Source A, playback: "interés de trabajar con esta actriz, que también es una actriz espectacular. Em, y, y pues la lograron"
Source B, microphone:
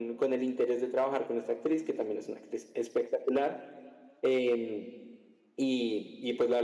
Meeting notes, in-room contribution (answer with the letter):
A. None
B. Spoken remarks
A